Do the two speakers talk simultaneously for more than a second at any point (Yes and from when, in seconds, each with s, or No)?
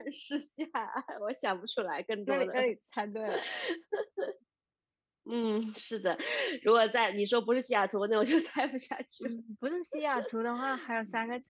No